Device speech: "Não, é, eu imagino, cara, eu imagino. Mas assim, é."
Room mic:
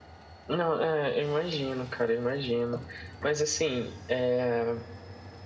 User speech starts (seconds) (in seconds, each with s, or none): none